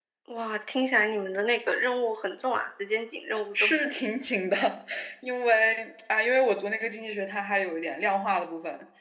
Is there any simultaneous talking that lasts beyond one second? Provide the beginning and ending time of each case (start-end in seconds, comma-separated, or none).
none